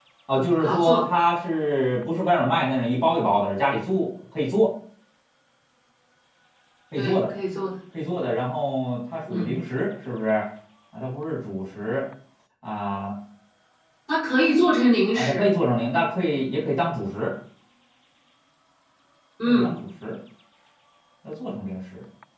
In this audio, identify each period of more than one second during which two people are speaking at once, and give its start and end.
none

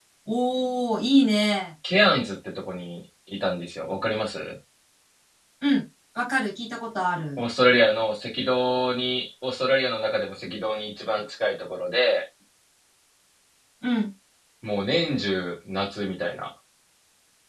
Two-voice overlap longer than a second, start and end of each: none

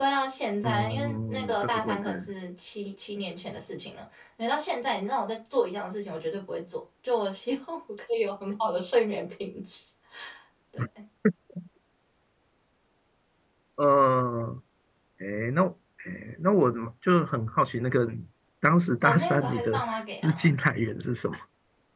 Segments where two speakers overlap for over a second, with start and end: 0.6-2.1, 19.0-20.5

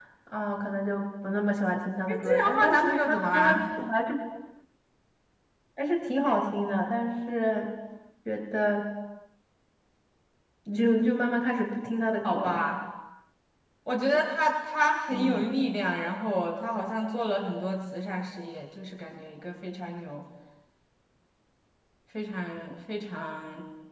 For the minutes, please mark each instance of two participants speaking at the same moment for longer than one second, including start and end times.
2.1-3.6

